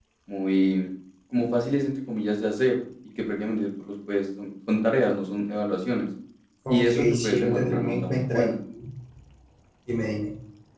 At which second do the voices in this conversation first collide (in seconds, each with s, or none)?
6.7 s